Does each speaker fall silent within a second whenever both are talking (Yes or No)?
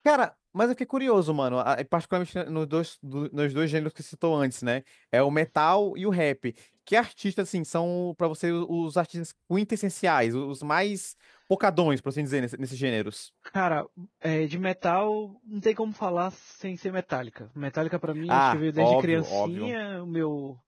No